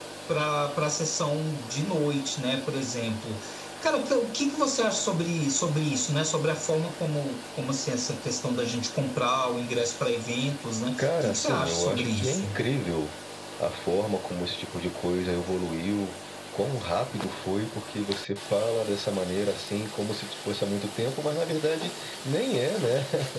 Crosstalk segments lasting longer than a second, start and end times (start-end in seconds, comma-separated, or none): 11.0-12.6